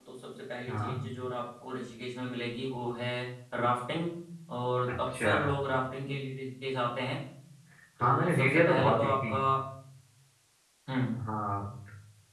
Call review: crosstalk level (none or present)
present